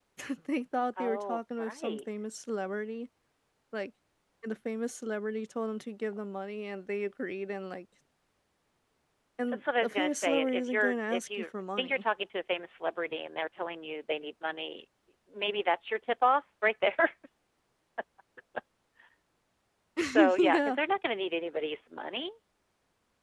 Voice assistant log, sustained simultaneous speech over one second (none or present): present